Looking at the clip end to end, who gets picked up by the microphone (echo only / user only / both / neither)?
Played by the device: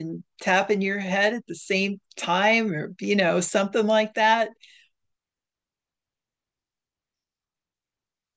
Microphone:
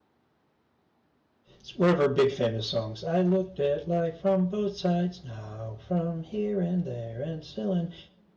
user only